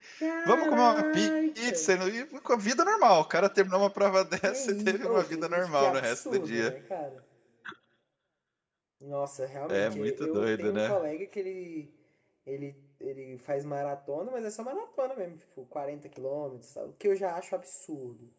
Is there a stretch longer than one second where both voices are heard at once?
Yes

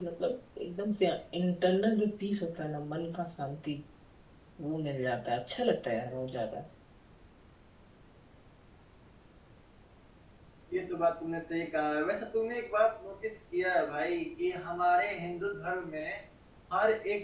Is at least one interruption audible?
No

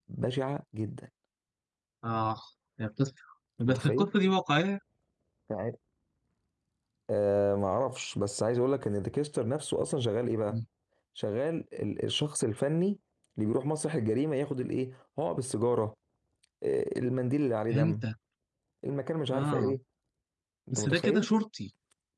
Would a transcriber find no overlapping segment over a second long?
Yes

